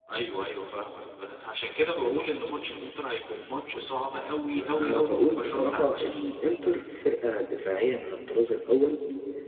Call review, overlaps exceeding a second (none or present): present